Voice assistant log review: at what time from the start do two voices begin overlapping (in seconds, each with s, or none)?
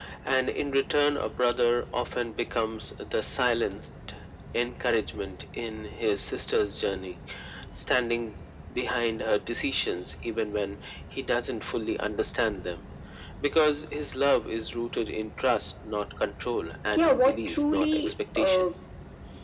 16.7 s